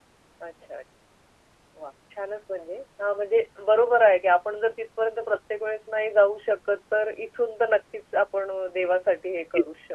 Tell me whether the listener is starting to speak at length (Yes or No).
Yes